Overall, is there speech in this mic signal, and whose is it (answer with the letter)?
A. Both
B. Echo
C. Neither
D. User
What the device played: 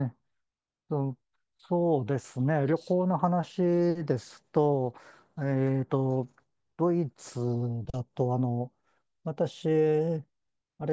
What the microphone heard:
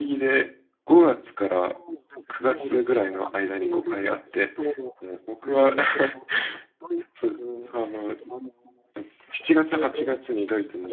A